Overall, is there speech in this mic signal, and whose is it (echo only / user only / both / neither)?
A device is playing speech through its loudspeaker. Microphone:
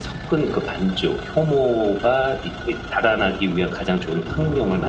echo only